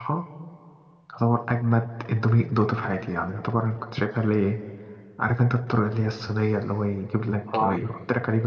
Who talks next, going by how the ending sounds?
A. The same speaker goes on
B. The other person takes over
A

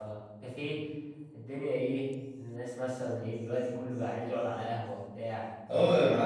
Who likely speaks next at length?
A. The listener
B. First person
A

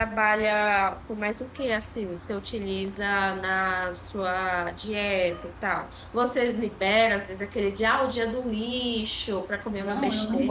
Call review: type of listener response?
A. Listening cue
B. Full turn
B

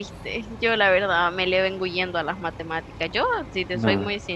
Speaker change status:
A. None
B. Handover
A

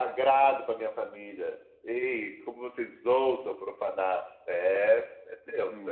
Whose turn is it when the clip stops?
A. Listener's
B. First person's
A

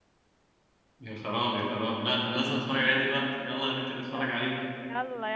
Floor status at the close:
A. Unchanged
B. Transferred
B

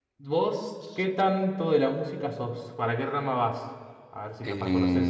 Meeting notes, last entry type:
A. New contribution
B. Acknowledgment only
A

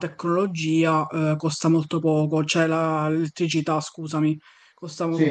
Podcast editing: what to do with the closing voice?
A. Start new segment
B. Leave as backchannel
B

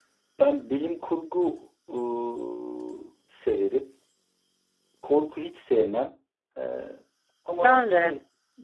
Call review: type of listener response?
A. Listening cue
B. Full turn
A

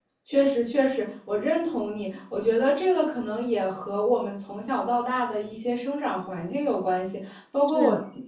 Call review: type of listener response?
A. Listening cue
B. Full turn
A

